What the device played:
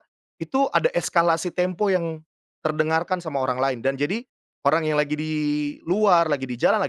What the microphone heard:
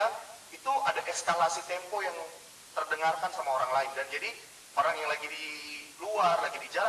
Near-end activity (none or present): none